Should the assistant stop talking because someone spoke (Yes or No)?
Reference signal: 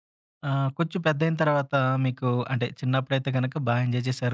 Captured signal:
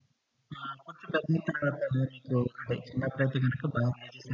No